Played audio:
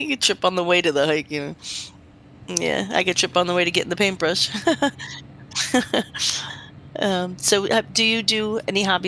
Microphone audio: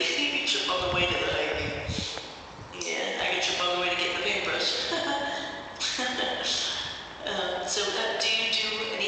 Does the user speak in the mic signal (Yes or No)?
No